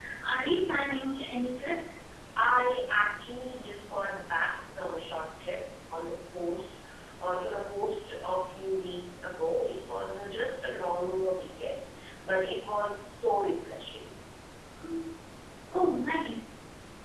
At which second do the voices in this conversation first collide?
none

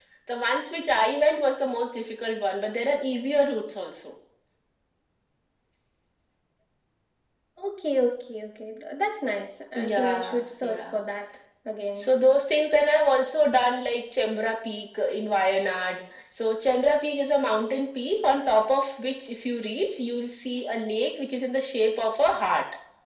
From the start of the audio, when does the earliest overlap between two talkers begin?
10 s

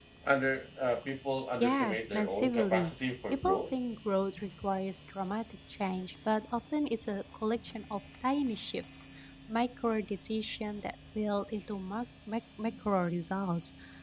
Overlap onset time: 2 s

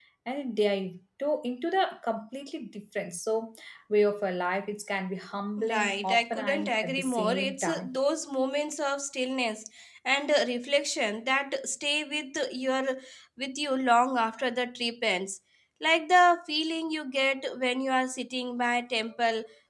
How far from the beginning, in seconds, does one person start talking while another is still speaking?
6 s

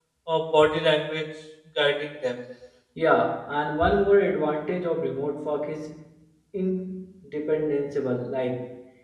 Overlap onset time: none

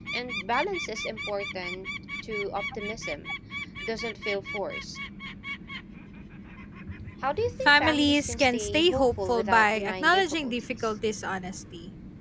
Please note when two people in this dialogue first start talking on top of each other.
8 s

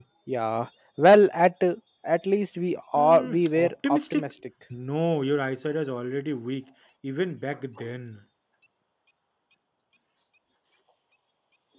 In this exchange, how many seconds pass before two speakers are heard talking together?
3 s

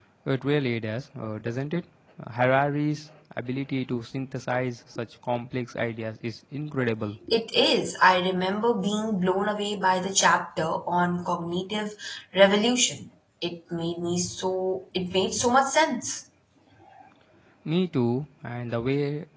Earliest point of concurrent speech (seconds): none

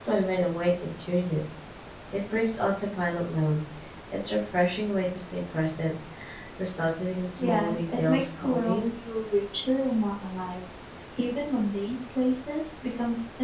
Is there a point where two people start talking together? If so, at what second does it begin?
7 s

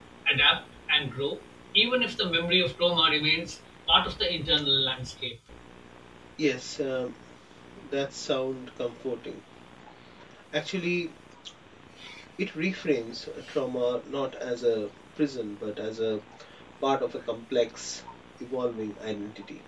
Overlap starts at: none

